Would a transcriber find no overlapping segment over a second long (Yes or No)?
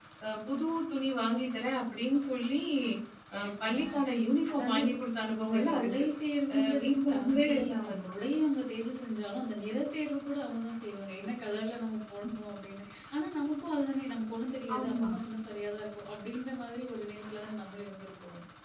No